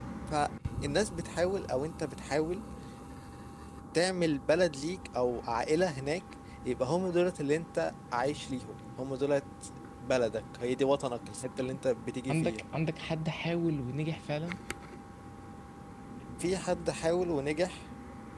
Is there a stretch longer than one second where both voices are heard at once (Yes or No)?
No